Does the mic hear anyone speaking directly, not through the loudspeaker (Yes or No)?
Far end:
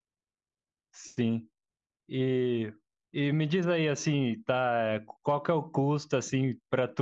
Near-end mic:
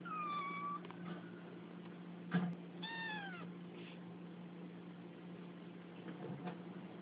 No